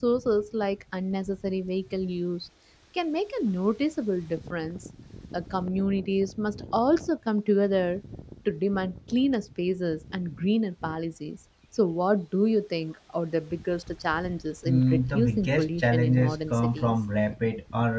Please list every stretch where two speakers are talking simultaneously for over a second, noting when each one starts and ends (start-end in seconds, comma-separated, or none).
14.7-16.9